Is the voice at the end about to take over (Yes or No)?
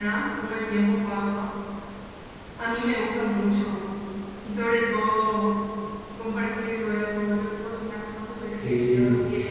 No